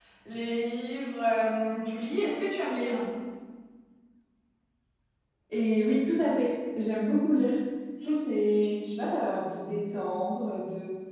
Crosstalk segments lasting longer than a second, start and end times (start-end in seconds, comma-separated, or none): none